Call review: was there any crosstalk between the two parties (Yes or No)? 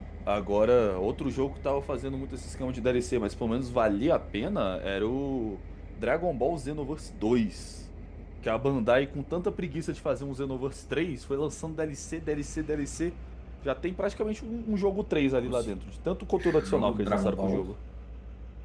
Yes